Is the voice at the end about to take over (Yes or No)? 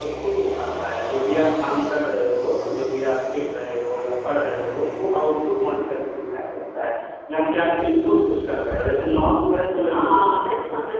Yes